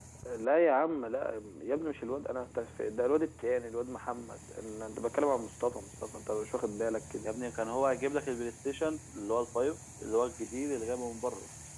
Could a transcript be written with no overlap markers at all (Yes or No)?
Yes